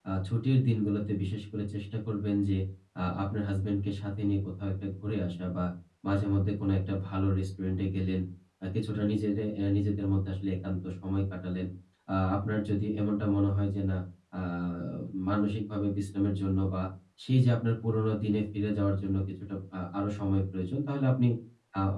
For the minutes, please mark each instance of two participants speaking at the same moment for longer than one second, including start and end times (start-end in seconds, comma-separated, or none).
none